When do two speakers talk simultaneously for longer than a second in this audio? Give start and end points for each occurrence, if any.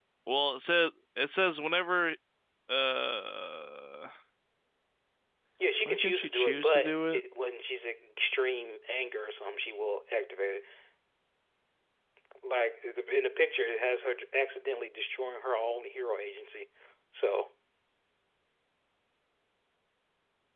5.8-7.2

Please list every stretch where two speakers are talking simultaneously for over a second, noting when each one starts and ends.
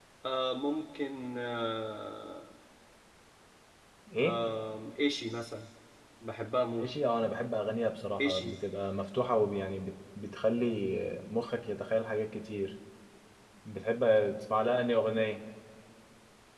none

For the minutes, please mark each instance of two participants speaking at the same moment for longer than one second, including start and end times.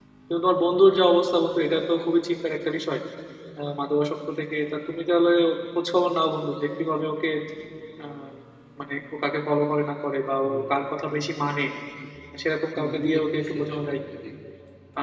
12.8-14.0

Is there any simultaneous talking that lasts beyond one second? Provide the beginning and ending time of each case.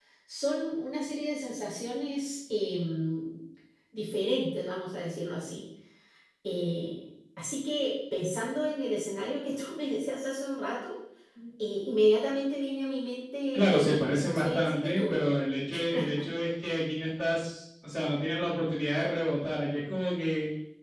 13.5-15.2

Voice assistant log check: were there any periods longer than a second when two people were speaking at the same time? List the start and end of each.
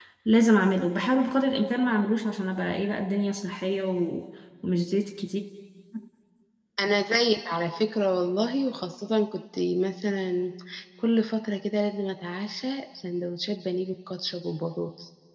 none

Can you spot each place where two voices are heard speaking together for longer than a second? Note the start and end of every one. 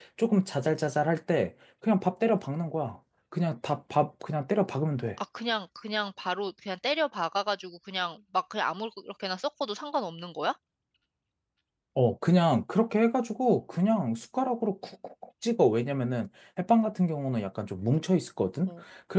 none

